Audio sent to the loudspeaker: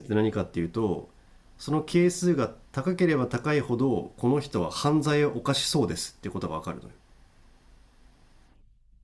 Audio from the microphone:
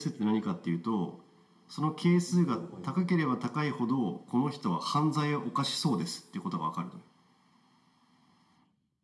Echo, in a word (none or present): present